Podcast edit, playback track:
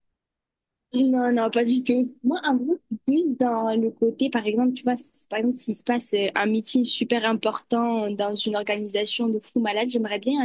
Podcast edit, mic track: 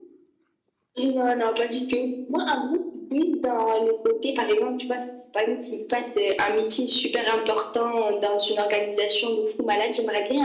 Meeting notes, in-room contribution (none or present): none